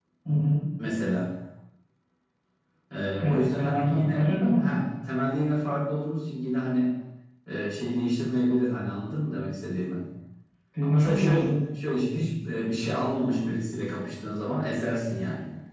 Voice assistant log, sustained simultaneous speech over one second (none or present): present